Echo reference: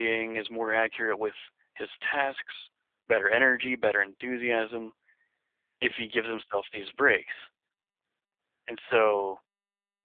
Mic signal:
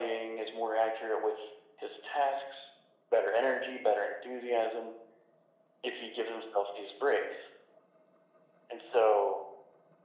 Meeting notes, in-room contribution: none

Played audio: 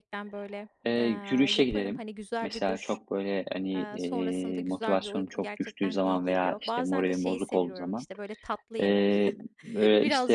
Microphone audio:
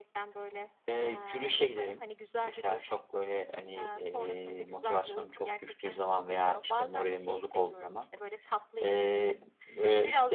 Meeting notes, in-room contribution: none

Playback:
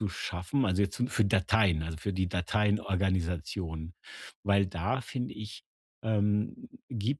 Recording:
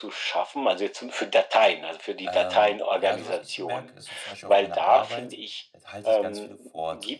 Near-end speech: present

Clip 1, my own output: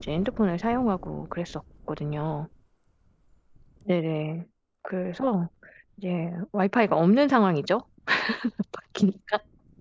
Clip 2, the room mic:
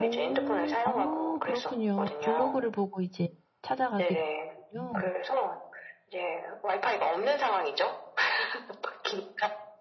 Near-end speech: present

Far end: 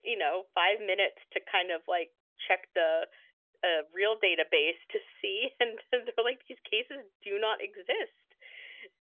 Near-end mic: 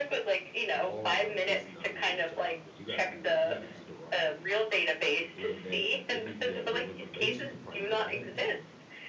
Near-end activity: present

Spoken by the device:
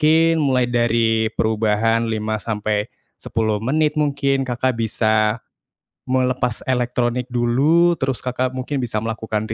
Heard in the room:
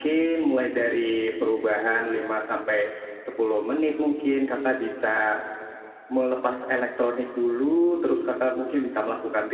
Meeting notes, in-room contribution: none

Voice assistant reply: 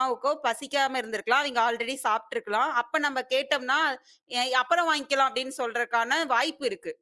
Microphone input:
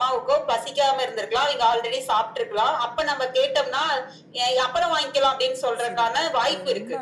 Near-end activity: present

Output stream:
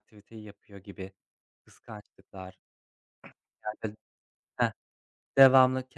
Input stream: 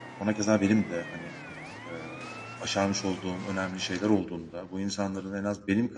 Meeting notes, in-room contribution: present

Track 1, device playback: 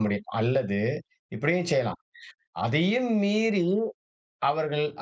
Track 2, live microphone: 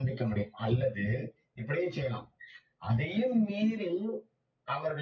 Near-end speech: none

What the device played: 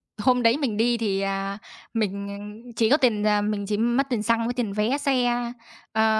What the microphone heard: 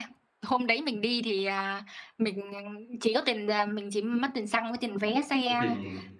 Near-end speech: present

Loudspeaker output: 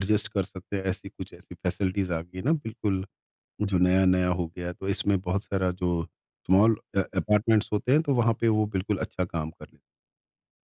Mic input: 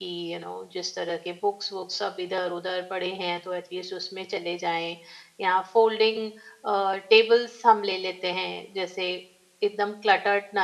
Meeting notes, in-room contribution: present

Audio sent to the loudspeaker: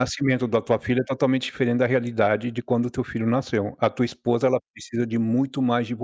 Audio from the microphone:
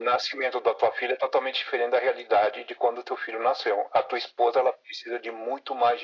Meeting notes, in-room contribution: none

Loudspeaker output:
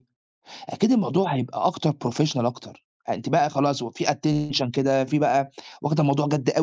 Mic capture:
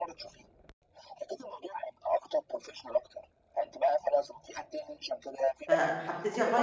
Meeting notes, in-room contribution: present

